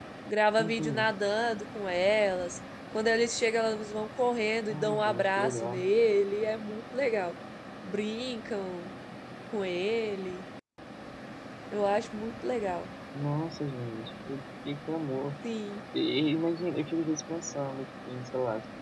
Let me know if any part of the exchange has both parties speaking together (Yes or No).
Yes